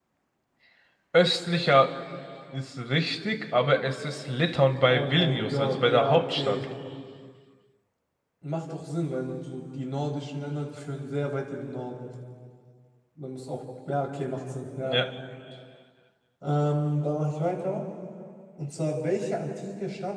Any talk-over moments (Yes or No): Yes